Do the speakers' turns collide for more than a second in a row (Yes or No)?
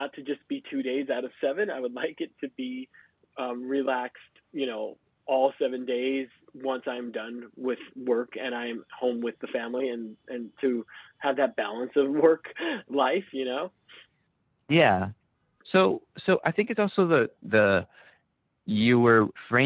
No